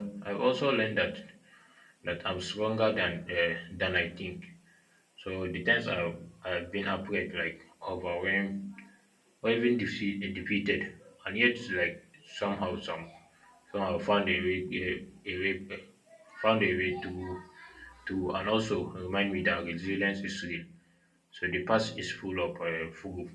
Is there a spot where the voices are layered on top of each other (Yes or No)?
No